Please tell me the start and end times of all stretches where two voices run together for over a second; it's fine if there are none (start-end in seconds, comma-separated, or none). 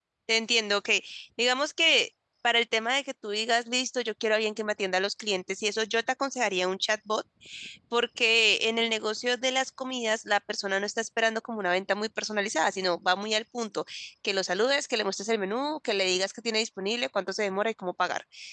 none